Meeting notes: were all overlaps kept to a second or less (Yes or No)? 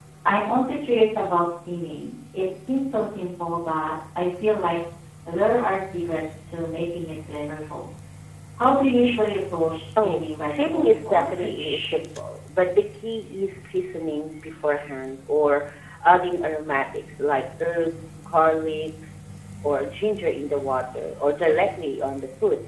No